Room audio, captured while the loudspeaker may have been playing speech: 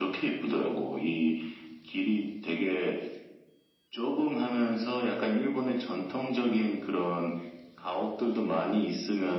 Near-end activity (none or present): none